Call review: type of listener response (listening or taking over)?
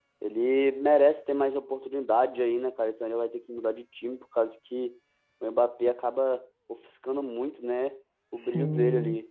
taking over